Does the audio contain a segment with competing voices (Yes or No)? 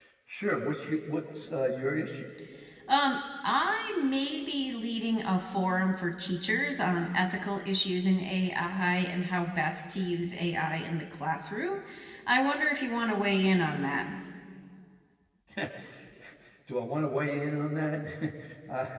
No